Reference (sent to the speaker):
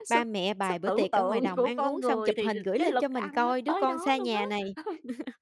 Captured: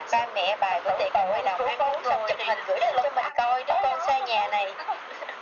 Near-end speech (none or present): none